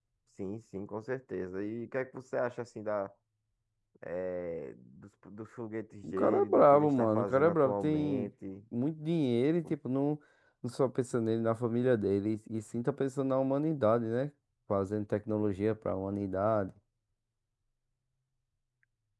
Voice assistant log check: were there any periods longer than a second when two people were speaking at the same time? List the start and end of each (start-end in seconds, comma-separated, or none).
6.0-8.3